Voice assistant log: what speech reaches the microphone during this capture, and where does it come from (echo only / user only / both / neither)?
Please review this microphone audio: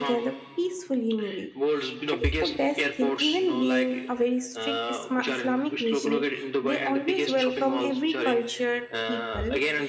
both